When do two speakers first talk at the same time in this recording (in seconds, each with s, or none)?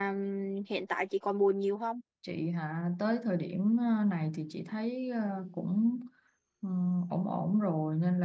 none